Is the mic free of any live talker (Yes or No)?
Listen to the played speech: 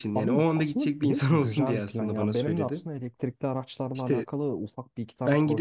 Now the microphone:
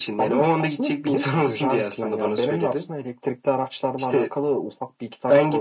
Yes